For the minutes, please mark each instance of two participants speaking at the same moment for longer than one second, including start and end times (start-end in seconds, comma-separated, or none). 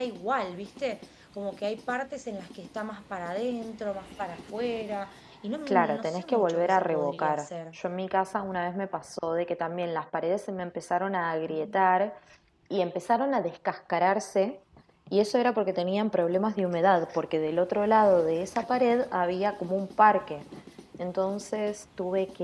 5.7-7.8